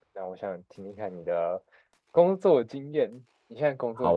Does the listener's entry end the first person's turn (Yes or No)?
Yes